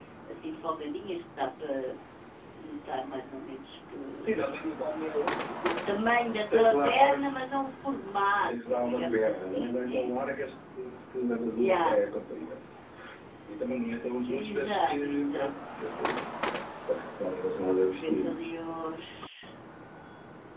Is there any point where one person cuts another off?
Yes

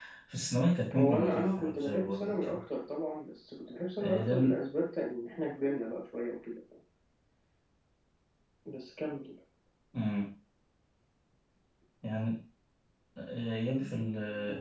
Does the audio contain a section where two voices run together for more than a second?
Yes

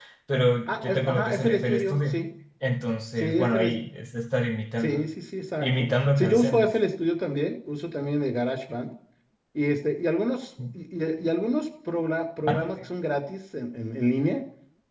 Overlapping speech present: Yes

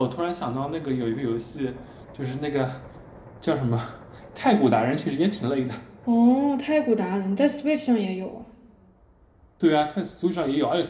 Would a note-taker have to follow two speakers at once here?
No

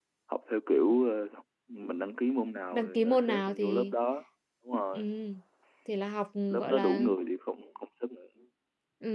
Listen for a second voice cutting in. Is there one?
Yes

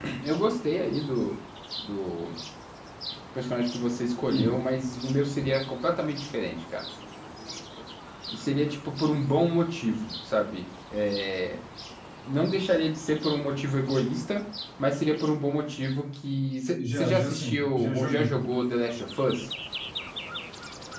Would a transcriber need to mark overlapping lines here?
Yes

